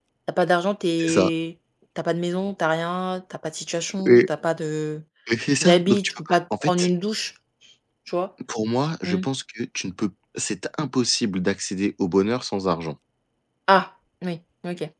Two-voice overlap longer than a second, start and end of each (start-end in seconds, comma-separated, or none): 5.6-6.9